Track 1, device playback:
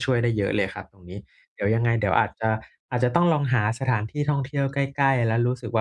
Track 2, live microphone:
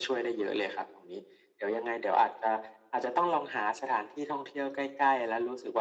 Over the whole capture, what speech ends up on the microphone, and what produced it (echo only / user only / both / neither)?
echo only